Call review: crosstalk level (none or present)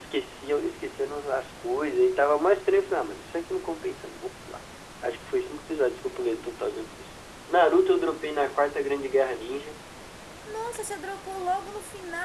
none